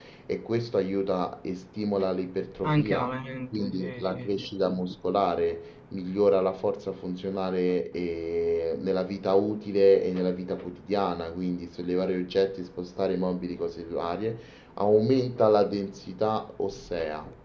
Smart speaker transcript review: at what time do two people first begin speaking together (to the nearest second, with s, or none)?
3 s